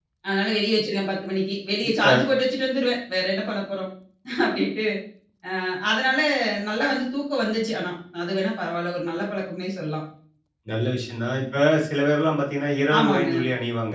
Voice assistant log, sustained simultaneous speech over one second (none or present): none